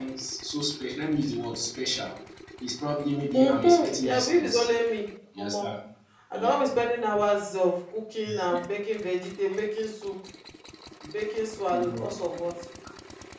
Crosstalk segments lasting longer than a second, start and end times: 3.3-4.7

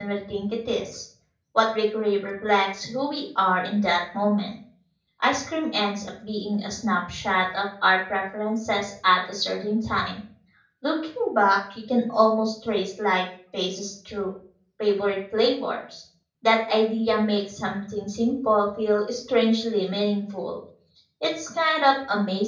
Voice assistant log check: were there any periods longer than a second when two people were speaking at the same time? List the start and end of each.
none

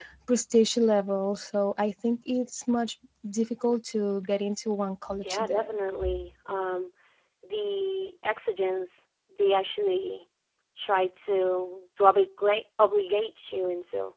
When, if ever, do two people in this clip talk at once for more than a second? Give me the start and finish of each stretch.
none

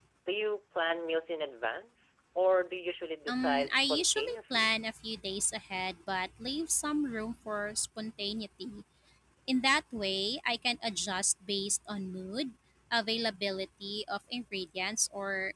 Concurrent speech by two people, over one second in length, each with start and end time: 3.3-4.7

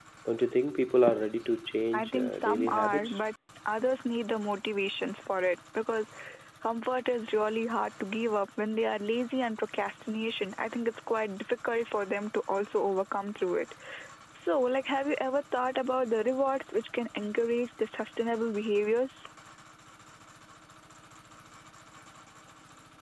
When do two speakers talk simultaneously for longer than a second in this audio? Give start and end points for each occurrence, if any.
1.9-3.2

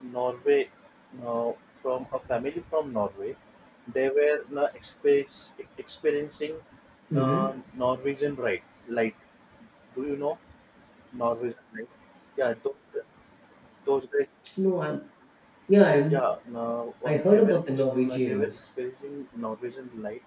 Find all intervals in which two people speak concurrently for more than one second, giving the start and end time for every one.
17.0-18.5

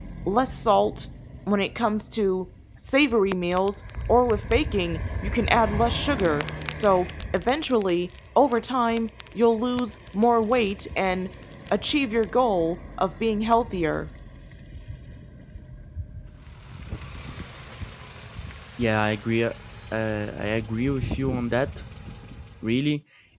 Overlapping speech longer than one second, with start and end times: none

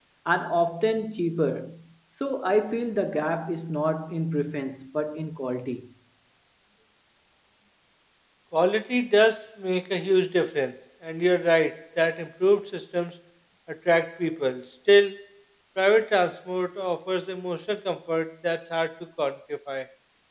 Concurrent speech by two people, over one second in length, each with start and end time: none

